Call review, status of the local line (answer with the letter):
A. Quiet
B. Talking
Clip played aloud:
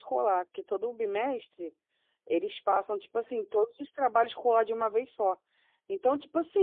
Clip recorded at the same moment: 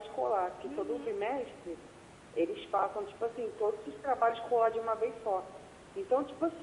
B